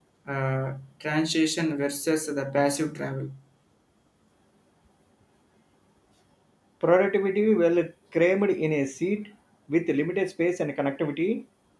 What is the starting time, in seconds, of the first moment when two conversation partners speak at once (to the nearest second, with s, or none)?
none